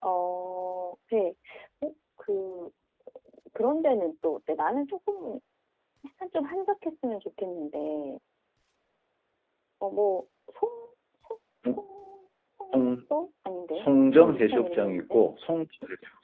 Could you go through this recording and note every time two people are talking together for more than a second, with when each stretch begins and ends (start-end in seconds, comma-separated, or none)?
13.8-15.2